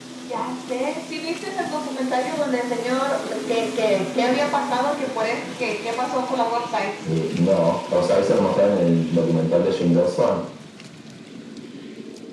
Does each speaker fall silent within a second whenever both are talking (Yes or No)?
Yes